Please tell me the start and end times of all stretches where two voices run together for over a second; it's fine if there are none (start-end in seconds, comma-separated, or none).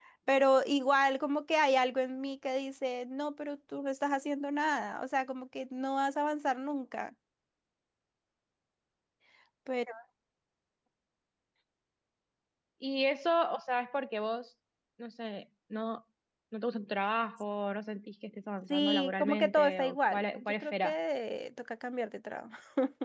18.7-20.9